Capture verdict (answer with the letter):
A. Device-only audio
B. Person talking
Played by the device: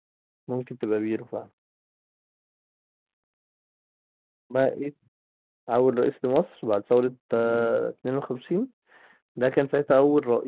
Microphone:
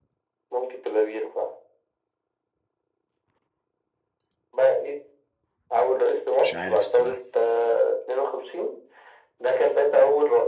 B